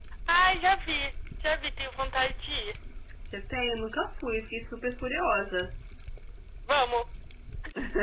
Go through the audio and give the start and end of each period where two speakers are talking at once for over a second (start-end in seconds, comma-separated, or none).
none